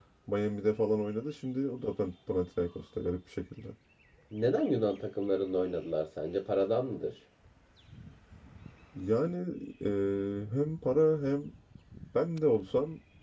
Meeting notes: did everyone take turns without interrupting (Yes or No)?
Yes